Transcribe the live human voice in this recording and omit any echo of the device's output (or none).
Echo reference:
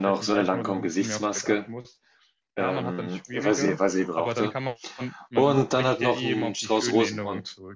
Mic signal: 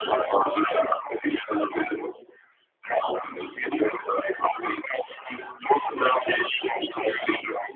none